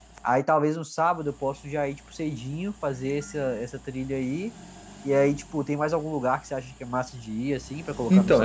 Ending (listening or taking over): taking over